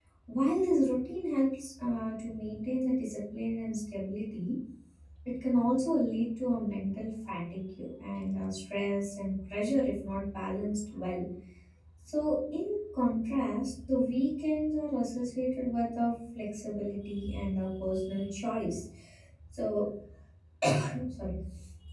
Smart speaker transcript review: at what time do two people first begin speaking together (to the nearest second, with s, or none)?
none